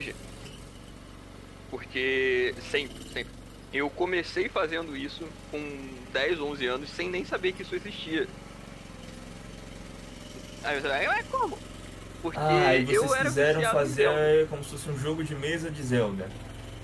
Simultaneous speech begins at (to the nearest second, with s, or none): 12 s